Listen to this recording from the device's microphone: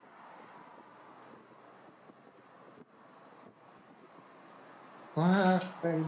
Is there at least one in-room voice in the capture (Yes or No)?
Yes